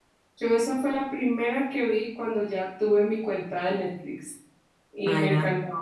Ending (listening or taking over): listening